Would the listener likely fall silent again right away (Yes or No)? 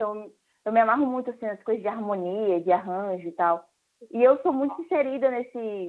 Yes